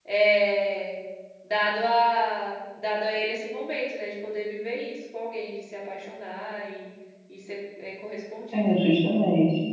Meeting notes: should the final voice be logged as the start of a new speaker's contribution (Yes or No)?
Yes